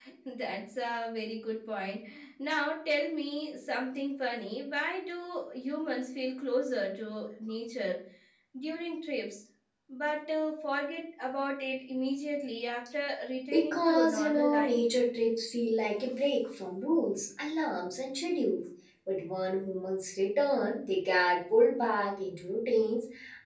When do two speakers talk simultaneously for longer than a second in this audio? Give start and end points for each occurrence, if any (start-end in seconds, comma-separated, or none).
13.5-14.8